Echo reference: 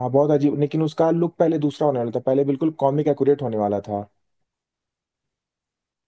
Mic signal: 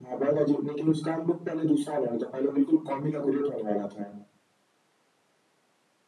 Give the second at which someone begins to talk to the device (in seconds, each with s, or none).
none